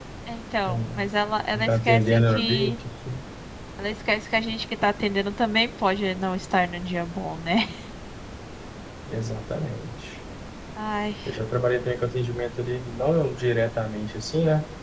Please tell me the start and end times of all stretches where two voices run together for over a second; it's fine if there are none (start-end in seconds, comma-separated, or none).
1.5-2.8